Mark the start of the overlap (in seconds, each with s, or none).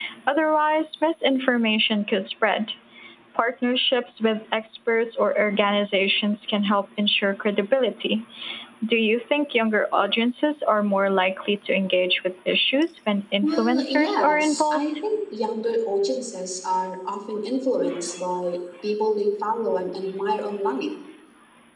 13.4 s